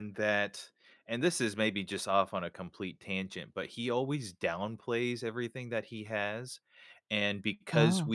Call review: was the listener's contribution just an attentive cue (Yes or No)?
Yes